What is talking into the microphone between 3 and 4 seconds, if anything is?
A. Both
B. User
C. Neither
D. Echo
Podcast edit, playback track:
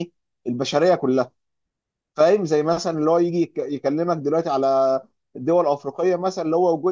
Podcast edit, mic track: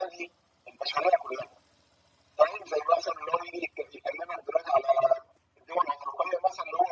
D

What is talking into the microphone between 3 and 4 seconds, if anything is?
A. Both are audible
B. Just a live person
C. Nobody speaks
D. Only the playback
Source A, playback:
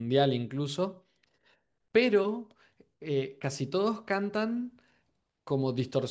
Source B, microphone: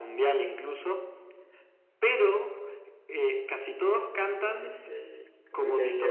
D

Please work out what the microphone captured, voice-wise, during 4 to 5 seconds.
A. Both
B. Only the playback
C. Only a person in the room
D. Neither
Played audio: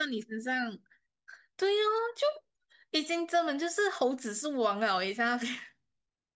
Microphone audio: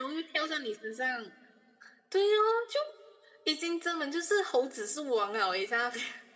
B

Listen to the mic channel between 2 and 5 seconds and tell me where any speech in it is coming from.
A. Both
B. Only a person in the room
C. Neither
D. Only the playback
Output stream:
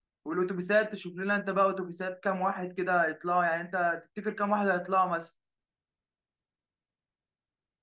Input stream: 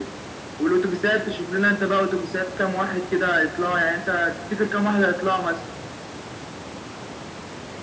D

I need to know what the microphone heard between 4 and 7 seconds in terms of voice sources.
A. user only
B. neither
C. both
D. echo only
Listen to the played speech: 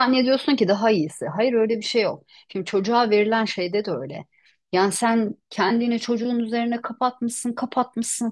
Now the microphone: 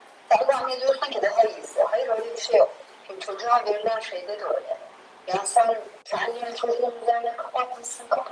D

